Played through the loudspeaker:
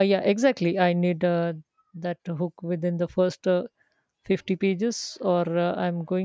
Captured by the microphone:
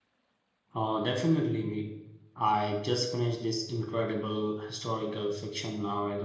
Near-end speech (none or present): present